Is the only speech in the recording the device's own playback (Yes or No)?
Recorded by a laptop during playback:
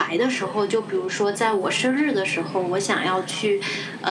Yes